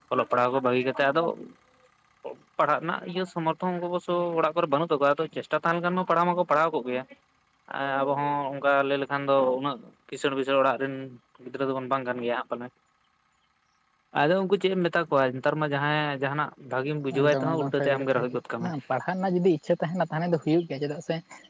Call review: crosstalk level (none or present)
present